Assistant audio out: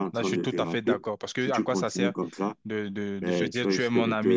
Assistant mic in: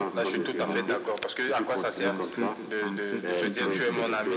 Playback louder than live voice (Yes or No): Yes